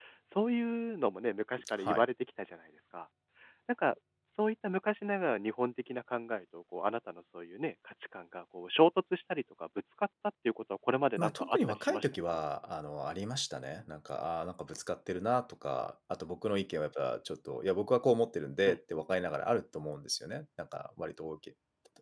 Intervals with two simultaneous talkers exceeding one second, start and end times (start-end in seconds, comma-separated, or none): 11.2-12.4